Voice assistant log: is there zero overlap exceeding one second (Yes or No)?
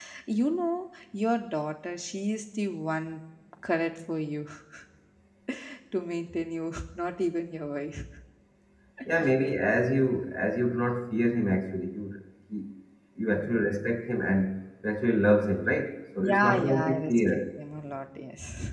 No